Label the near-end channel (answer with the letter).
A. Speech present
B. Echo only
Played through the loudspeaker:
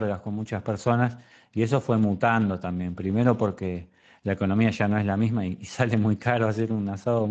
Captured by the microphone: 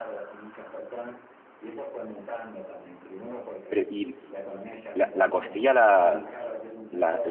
A